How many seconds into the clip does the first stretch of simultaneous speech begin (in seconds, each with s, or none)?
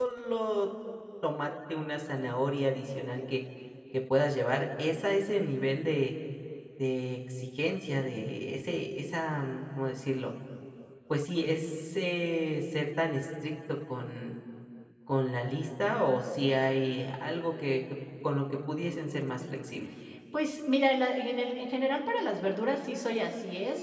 none